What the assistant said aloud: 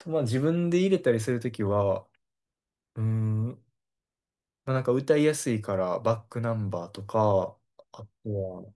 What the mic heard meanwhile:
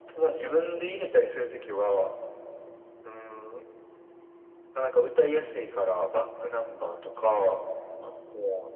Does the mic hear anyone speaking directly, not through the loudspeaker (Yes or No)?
No